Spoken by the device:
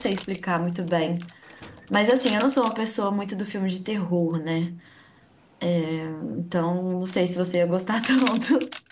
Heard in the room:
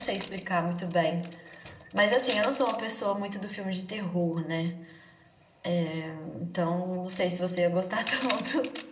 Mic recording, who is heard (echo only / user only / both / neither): echo only